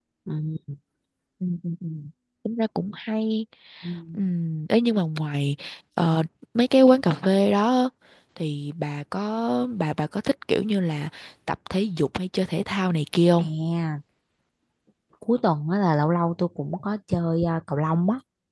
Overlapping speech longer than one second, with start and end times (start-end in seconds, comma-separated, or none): none